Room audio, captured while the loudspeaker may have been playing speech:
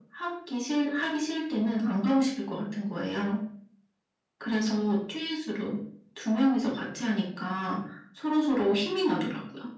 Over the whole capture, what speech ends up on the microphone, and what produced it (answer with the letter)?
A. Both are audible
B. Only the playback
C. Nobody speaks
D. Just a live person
B